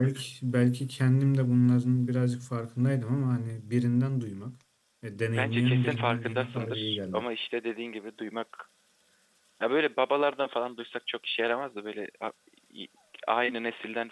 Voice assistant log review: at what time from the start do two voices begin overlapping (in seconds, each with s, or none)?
5.3 s